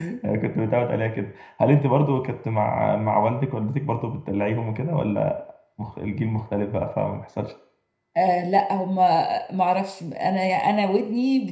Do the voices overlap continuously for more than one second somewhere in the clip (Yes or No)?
No